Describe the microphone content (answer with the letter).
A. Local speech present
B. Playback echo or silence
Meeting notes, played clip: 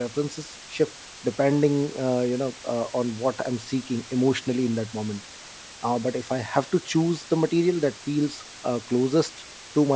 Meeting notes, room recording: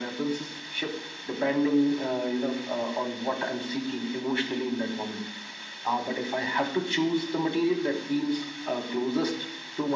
B